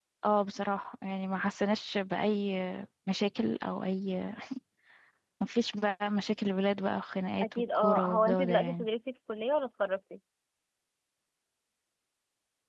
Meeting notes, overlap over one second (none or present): present